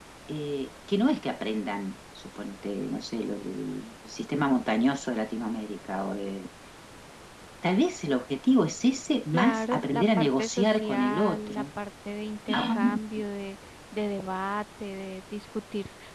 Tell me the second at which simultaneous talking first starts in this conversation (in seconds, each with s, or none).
9.3 s